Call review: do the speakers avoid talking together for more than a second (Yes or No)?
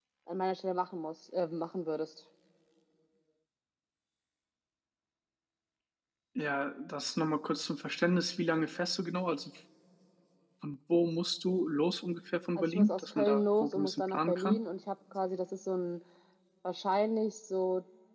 No